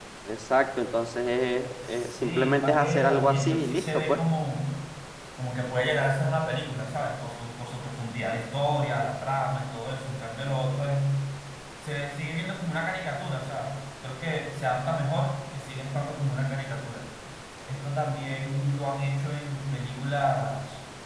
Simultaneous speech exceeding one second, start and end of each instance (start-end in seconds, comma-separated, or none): 1.8-4.2